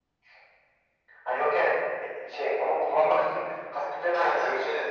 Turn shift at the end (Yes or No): Yes